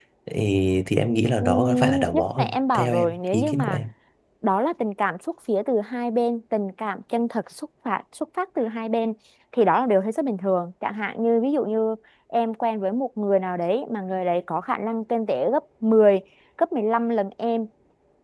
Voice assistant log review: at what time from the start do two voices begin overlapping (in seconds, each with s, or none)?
1.4 s